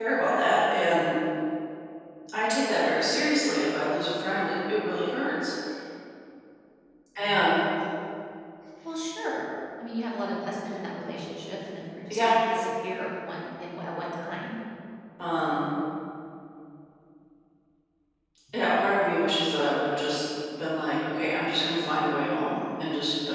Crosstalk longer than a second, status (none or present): none